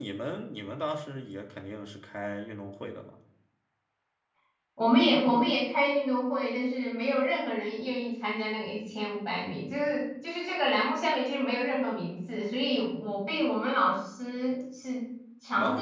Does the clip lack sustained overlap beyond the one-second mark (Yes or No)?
Yes